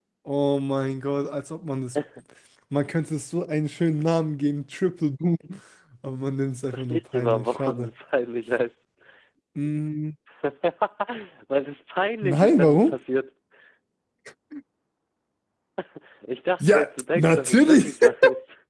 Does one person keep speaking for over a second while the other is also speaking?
Yes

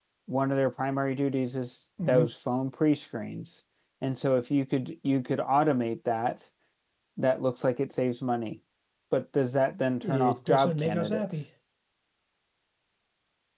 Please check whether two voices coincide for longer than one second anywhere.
Yes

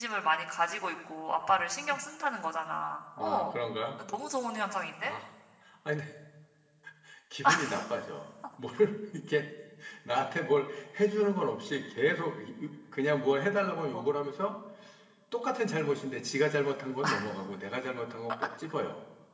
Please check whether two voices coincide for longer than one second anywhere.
No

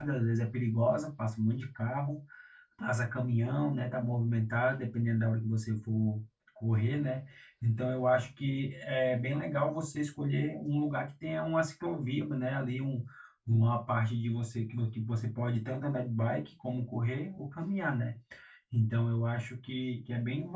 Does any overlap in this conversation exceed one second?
No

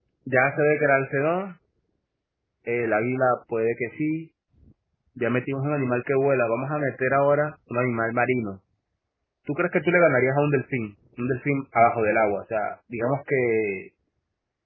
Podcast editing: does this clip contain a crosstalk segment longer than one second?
No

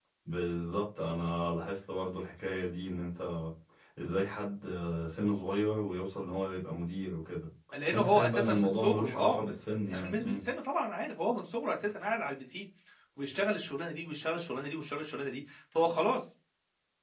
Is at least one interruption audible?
Yes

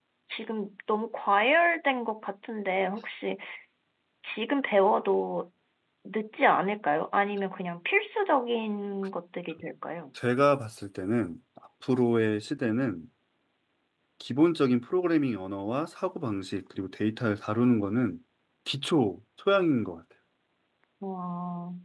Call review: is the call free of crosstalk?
Yes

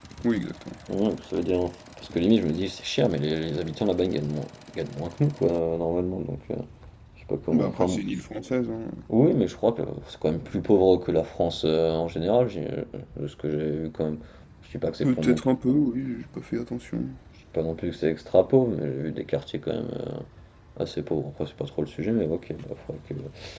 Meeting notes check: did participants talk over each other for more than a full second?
No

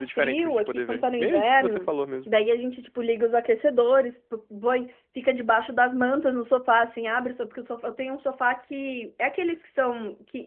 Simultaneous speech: Yes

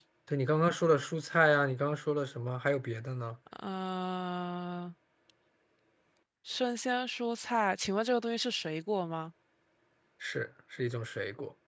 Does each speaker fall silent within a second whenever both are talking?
Yes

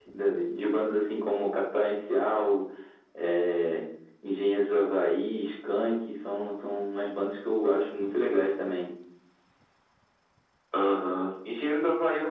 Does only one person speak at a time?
Yes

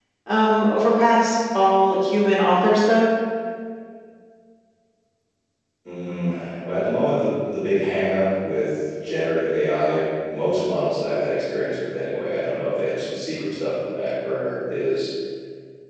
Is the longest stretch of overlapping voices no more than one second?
Yes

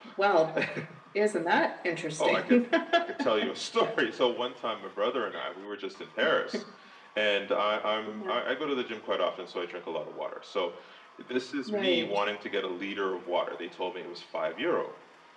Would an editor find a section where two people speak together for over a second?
No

